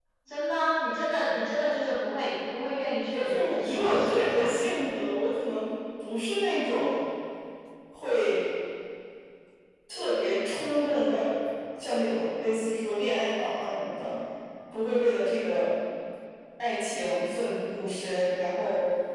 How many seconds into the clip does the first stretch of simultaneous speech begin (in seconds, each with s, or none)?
3.1 s